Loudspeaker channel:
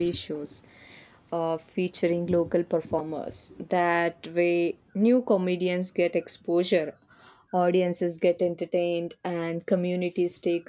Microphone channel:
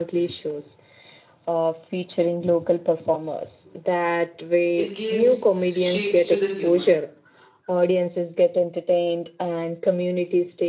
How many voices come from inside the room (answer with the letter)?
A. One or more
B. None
A